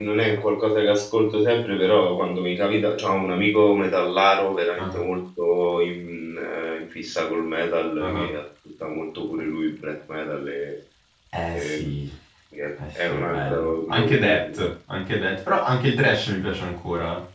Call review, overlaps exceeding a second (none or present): present